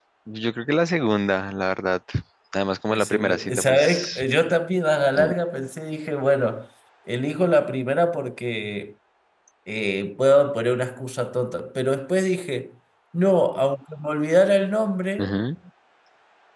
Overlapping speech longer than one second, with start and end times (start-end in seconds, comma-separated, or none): 2.9-4.2